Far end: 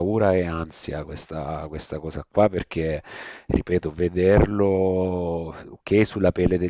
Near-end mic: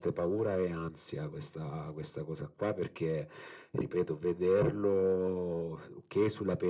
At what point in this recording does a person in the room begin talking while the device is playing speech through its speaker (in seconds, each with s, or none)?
none